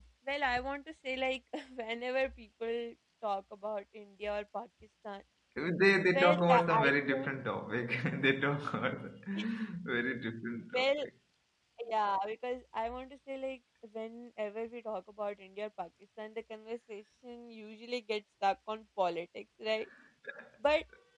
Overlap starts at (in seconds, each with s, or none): 6.1 s